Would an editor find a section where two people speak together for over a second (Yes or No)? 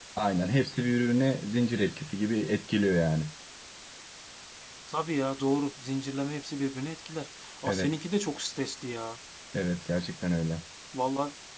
No